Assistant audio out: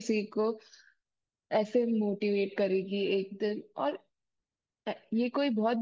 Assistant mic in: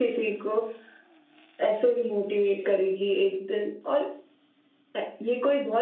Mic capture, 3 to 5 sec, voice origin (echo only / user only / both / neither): echo only